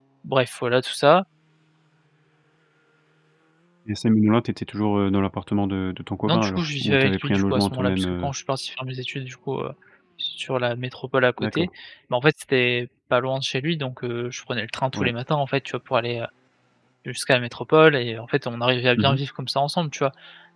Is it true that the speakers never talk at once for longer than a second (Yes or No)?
No